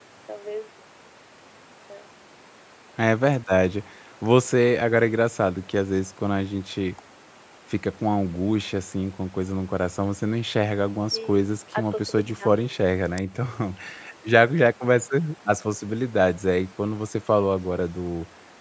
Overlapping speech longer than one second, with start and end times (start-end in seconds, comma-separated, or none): 11.1-13.0